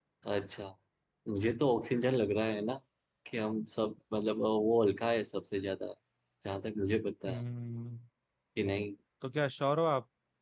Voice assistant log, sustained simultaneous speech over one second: none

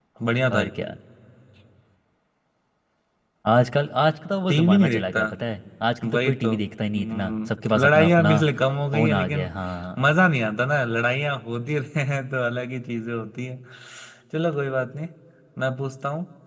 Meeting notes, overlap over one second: present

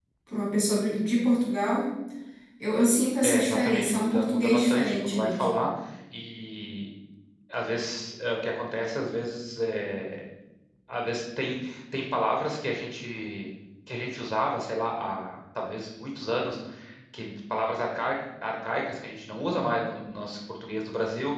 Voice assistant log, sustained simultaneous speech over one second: present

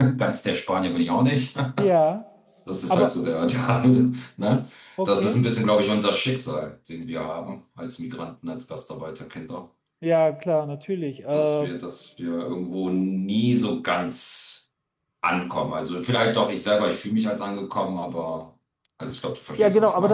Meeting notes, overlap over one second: none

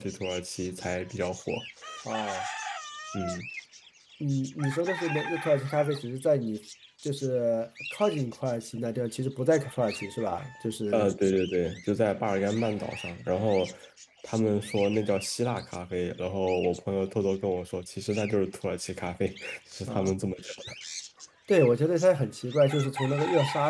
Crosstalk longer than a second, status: none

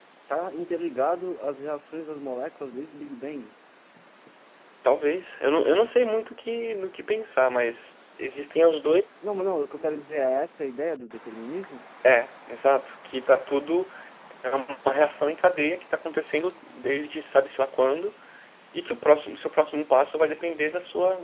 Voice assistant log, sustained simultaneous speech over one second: none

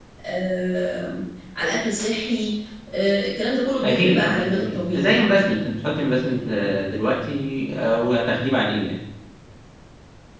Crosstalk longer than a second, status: present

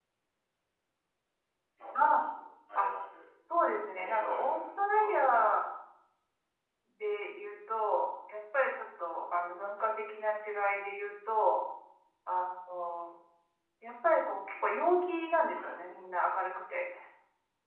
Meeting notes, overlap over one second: present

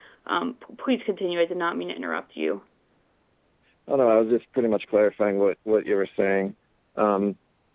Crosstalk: none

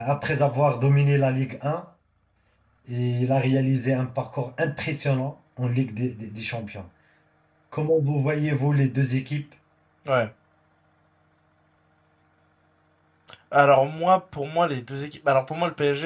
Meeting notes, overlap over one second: none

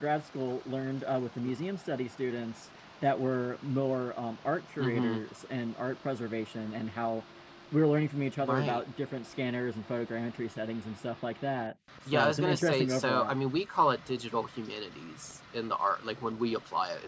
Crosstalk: present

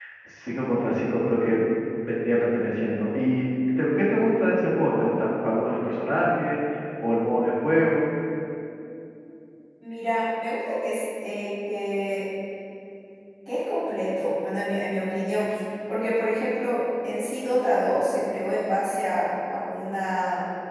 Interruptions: none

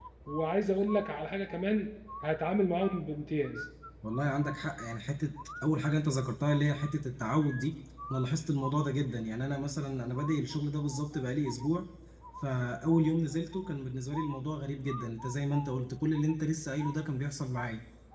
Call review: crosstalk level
none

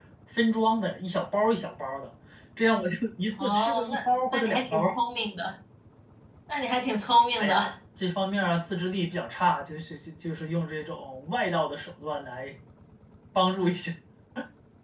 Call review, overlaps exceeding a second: present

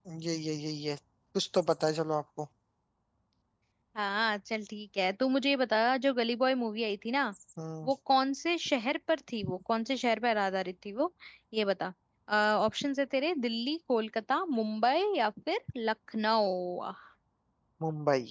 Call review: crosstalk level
none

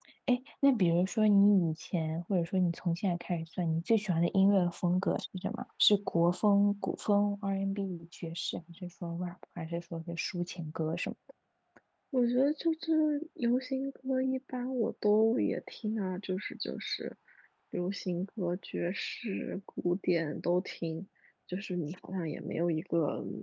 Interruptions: none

